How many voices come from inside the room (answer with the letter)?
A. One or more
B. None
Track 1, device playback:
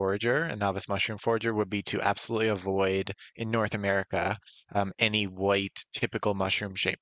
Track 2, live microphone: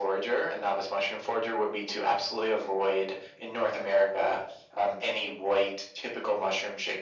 B